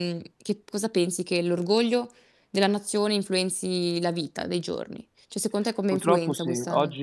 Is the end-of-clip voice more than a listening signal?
Yes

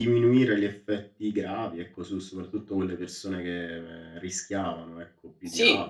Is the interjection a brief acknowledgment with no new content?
No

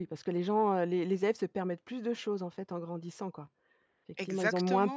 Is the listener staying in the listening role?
Yes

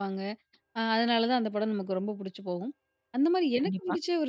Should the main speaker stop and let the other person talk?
No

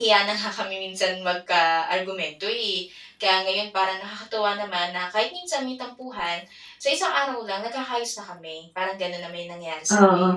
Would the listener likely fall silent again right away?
No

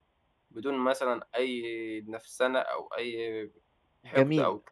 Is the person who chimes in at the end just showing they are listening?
No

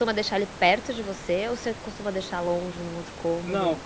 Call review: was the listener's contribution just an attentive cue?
No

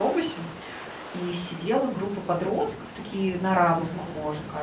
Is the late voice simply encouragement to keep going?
Yes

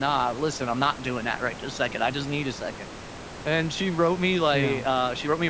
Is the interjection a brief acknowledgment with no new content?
Yes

